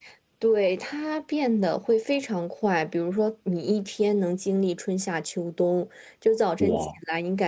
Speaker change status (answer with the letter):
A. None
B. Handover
A